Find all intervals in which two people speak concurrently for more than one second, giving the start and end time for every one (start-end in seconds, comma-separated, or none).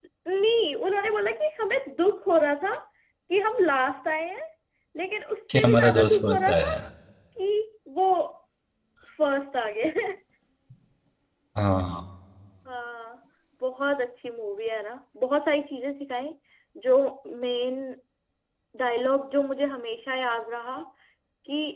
5.5-6.8